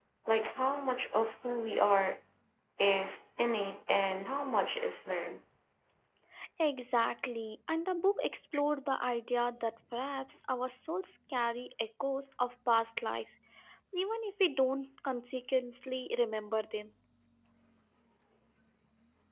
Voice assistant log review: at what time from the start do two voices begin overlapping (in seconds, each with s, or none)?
none